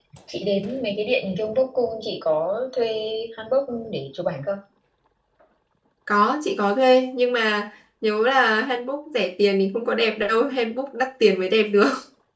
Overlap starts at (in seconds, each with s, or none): none